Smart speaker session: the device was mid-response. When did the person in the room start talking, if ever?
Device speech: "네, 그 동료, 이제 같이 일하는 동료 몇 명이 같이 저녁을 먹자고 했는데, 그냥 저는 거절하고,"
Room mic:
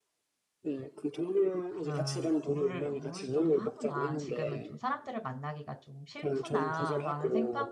1.7 s

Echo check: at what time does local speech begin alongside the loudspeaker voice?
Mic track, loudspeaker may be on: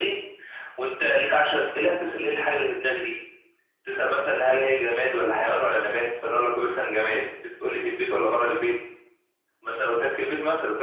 none

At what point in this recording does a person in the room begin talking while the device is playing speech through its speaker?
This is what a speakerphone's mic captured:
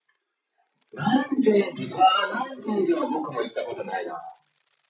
none

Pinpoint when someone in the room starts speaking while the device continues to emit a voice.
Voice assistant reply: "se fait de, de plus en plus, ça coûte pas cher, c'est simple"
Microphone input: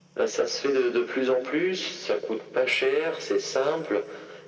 none

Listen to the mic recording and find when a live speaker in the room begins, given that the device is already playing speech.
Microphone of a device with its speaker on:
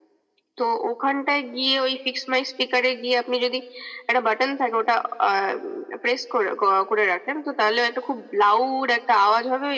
none

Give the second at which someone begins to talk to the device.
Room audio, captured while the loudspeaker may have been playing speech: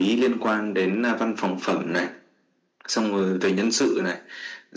none

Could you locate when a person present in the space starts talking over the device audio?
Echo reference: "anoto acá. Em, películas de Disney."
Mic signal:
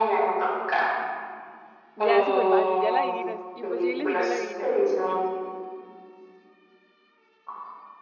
1.9 s

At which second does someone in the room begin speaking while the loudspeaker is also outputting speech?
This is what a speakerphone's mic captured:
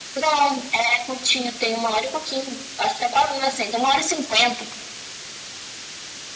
none

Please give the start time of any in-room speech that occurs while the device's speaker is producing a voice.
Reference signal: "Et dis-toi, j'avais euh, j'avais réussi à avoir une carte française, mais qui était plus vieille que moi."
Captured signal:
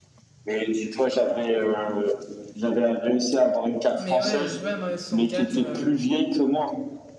4.0 s

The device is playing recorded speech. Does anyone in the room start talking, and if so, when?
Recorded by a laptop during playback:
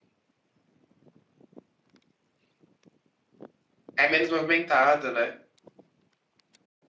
4.0 s

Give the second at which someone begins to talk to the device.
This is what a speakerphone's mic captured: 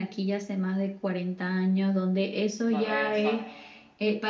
2.7 s

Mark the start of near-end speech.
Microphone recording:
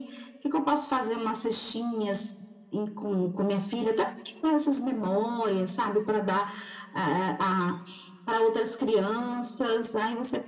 none

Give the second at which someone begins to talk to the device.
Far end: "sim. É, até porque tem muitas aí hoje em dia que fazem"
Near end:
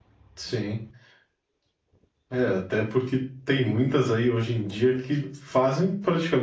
none

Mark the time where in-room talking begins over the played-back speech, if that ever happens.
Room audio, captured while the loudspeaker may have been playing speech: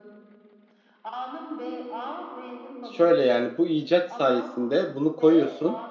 2.8 s

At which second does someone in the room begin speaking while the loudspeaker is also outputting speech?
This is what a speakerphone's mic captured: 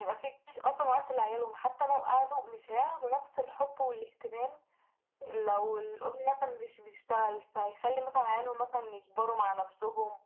none

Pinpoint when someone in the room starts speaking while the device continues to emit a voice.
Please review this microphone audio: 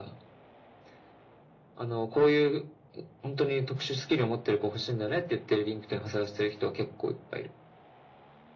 none

